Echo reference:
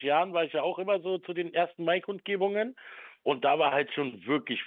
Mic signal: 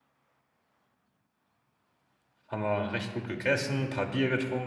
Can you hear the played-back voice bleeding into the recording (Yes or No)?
No